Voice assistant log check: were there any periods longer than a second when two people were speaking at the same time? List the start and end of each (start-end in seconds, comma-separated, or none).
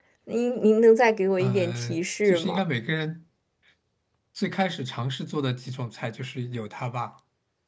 1.4-2.6